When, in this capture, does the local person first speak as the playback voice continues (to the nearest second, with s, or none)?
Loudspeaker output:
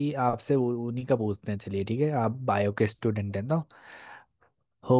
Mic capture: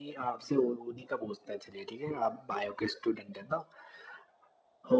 none